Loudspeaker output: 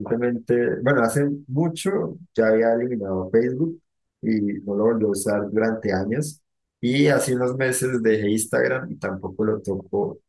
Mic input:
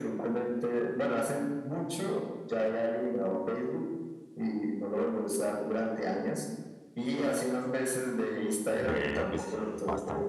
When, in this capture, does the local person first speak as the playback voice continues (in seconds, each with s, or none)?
8.7 s